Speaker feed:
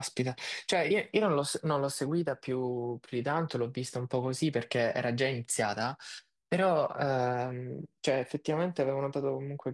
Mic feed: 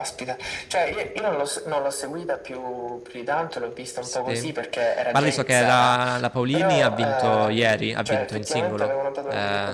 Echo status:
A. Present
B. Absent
A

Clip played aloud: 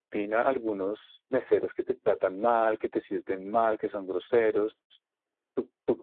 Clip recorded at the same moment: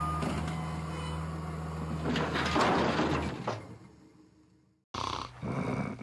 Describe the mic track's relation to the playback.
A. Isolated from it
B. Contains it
A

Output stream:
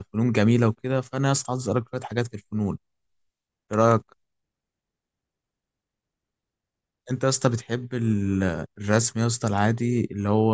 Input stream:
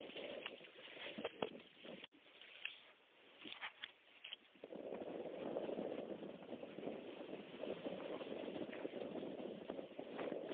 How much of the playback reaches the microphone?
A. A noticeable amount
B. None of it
B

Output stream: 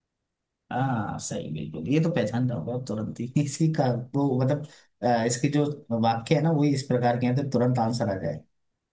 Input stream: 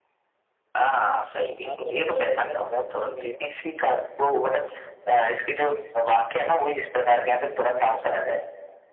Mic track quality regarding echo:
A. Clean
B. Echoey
B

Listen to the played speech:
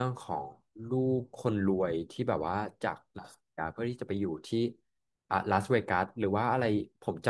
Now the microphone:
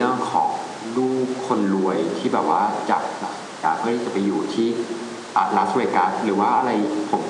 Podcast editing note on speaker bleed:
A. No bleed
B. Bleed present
B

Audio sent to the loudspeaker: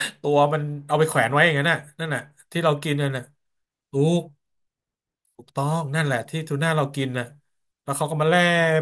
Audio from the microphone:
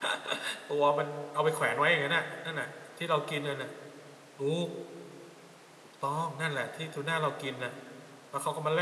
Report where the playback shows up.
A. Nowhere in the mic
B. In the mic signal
B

